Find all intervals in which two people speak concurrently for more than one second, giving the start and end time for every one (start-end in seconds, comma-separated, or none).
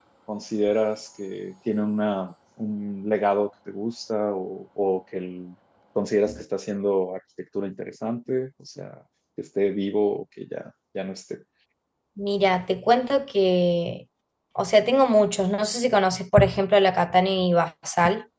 none